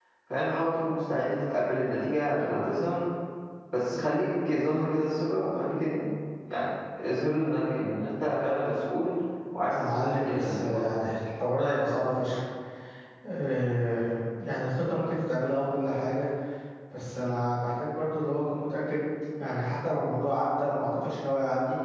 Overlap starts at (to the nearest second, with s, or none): 10 s